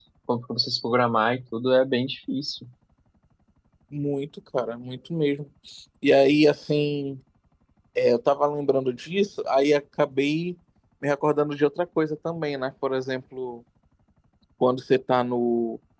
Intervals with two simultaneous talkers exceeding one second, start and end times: none

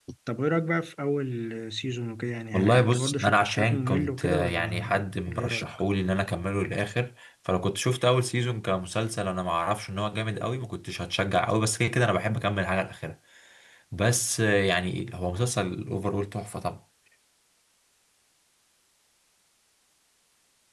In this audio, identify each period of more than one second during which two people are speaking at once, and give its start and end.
2.5-5.8

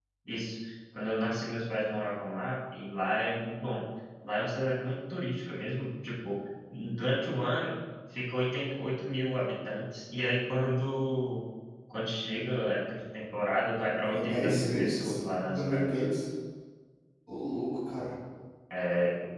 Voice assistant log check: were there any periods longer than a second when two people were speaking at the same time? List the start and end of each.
14.0-16.0

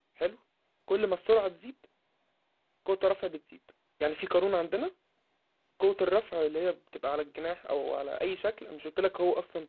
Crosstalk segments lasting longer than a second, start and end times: none

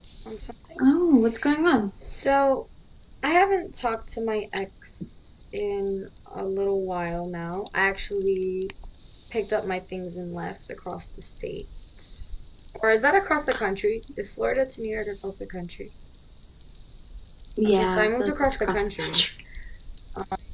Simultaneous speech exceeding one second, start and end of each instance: 17.8-19.2

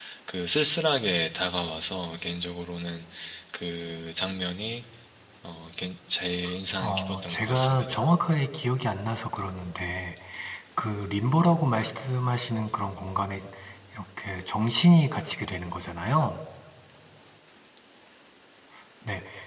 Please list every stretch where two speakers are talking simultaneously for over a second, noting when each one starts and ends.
6.8-8.0

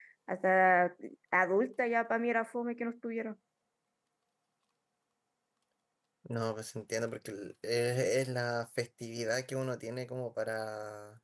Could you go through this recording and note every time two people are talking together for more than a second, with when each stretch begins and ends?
none

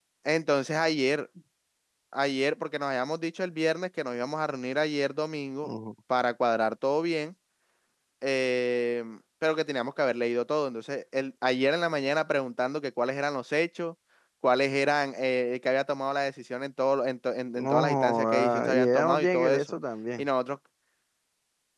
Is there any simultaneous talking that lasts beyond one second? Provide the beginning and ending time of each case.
17.6-19.7

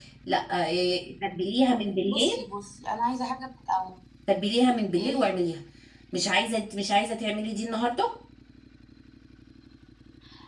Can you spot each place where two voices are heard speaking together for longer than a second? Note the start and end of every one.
none

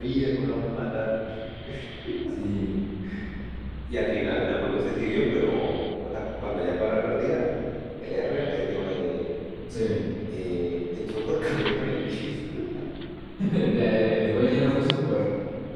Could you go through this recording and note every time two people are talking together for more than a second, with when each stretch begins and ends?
none

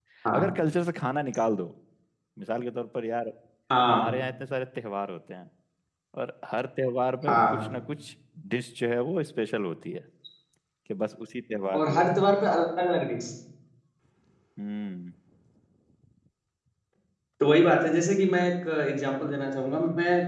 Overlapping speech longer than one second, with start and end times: none

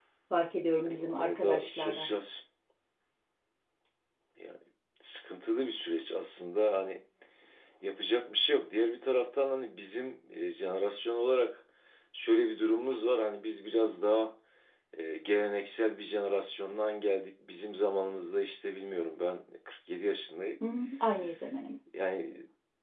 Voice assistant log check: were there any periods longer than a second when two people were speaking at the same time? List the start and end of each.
0.8-2.1

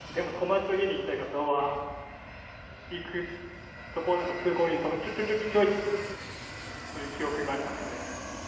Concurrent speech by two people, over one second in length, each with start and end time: none

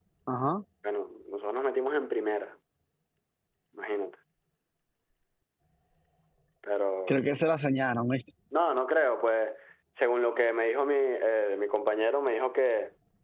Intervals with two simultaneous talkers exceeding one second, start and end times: none

